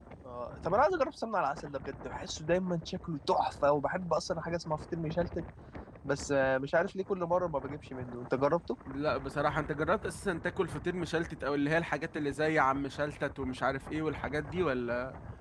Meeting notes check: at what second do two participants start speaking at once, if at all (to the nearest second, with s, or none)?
none